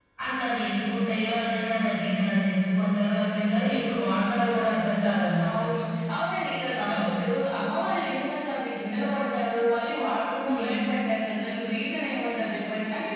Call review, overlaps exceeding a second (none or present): none